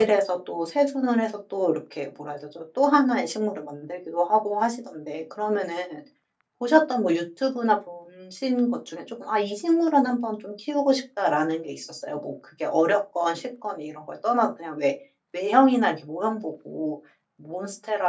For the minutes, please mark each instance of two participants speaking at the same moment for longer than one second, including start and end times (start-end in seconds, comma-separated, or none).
none